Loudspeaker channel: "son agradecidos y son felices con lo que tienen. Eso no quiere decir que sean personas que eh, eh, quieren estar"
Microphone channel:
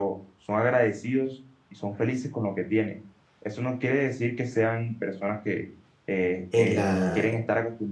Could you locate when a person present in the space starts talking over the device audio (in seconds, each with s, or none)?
6.5 s